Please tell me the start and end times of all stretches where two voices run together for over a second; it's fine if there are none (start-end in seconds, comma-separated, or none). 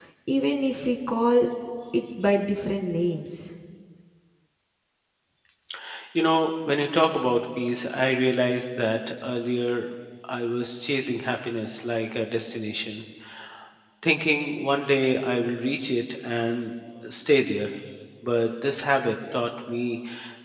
none